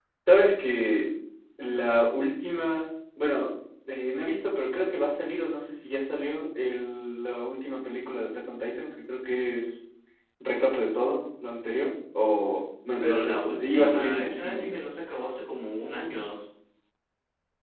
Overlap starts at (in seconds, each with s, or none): 13.0 s